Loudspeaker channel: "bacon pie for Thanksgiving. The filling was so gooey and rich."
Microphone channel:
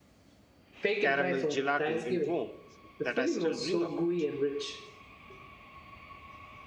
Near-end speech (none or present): present